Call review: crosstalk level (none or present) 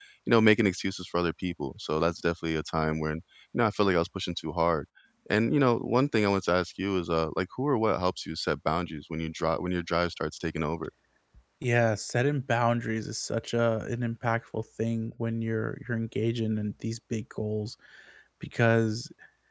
none